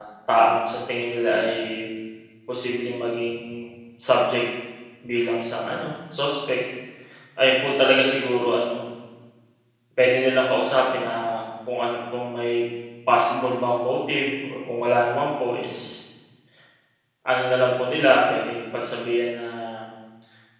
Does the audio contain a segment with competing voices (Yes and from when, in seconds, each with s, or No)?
No